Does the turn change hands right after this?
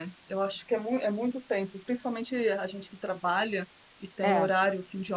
No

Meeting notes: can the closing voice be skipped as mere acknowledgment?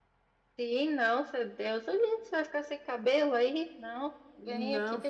No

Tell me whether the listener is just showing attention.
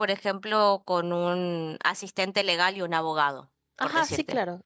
No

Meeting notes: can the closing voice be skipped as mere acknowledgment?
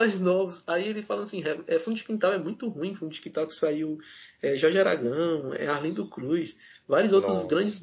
Yes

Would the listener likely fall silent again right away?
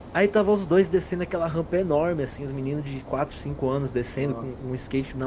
Yes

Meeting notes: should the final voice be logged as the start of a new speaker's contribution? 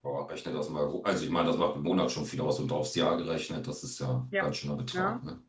Yes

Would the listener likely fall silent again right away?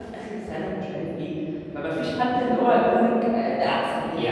No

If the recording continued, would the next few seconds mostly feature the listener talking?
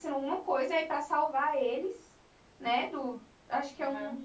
No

